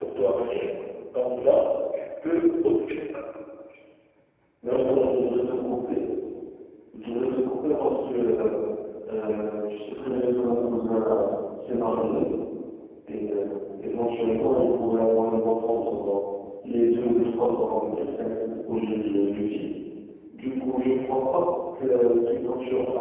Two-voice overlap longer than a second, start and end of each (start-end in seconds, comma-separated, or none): none